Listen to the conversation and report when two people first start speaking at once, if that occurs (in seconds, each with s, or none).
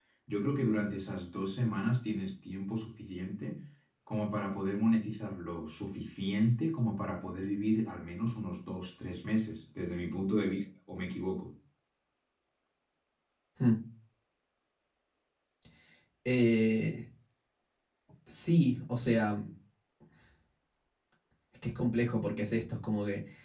none